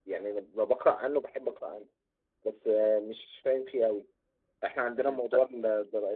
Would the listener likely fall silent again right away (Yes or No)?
Yes